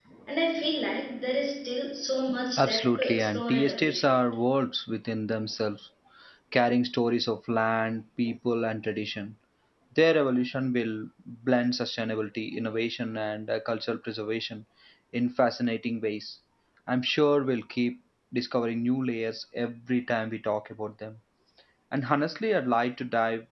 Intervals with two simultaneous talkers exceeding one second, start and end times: 2.6-4.2

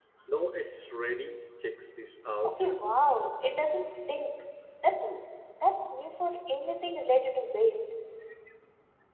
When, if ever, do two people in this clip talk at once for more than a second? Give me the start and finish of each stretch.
none

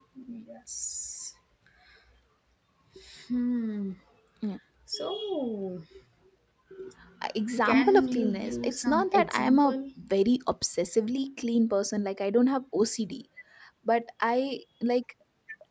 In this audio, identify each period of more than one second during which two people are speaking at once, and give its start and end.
7.7-9.8

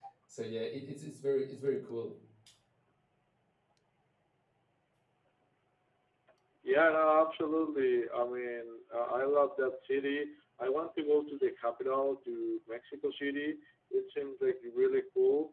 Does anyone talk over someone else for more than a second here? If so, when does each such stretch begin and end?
none

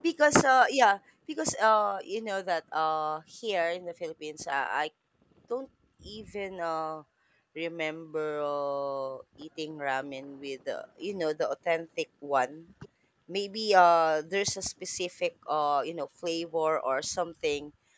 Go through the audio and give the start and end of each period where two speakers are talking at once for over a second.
none

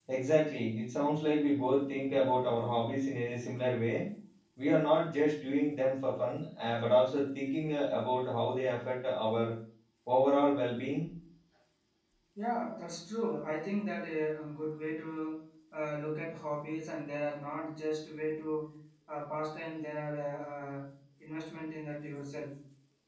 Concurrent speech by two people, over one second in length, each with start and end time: none

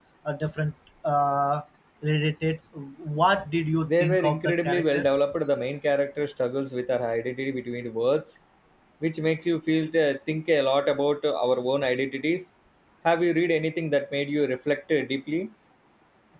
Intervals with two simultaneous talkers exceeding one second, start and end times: 3.8-5.1

